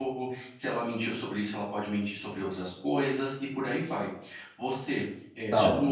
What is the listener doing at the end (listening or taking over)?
listening